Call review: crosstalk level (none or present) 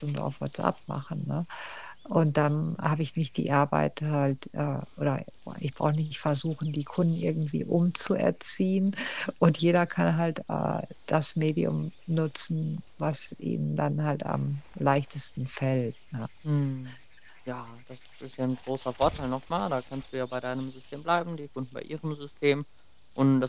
none